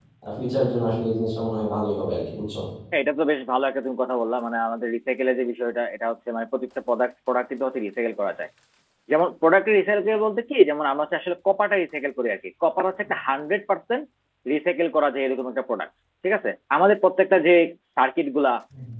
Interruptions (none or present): none